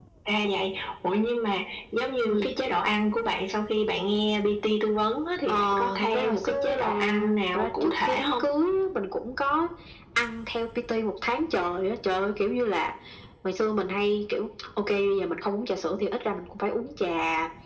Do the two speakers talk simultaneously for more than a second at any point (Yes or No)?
Yes